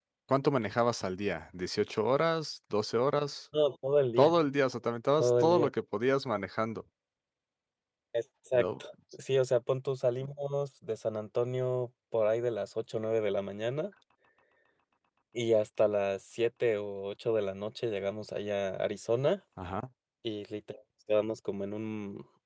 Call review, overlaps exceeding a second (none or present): none